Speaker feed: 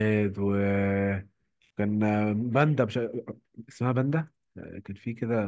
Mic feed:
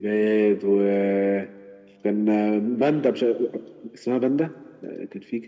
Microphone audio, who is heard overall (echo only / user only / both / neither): echo only